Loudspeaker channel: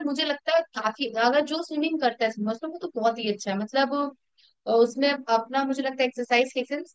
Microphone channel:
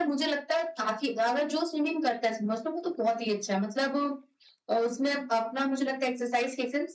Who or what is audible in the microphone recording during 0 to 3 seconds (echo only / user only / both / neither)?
echo only